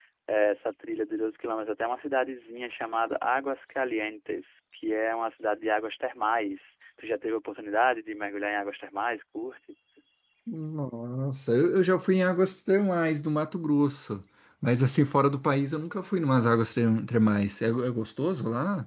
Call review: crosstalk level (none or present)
none